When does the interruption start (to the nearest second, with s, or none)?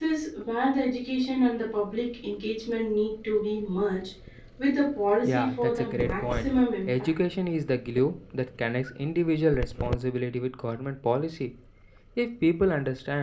5 s